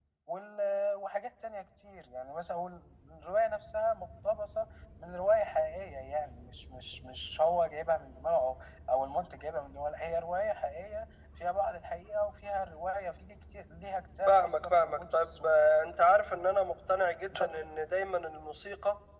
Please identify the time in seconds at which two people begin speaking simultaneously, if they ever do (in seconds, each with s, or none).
14.3 s